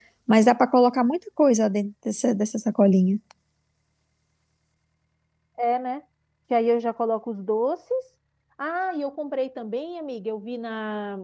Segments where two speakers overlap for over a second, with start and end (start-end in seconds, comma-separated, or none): none